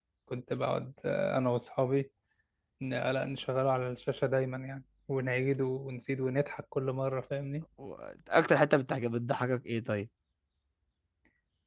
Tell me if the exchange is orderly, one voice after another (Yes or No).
Yes